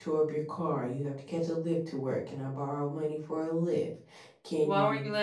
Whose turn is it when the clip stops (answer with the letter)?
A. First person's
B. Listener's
B